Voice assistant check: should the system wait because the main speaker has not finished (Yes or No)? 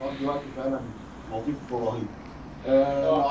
Yes